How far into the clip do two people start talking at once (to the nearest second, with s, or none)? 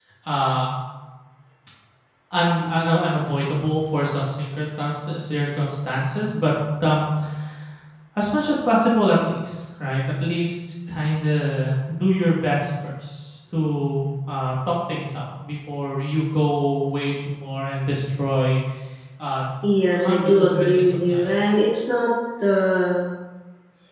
20 s